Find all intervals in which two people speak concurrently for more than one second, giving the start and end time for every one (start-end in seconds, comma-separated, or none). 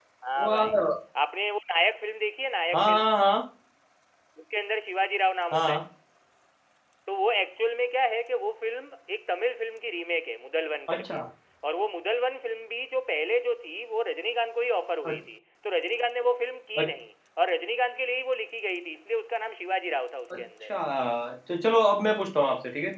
none